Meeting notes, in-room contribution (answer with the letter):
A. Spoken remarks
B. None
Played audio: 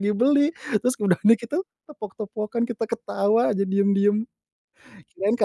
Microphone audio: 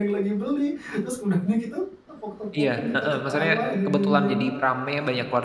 A